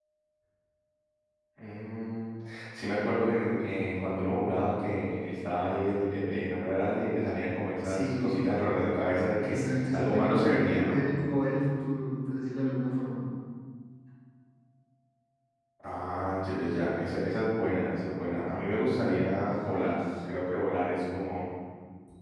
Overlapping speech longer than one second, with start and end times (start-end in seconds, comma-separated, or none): 9.4-11.0